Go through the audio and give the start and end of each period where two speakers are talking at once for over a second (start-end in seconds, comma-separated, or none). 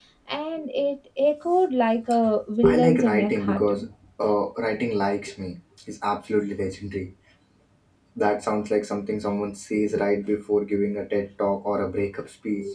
2.6-3.9